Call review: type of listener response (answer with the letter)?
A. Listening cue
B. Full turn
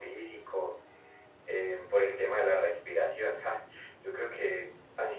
A